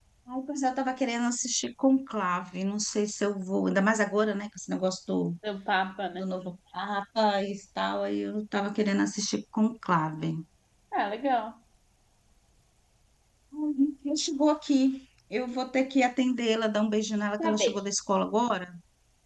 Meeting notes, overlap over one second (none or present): none